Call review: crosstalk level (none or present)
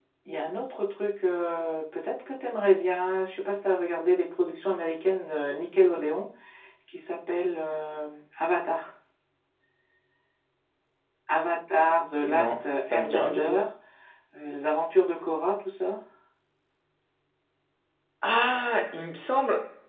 present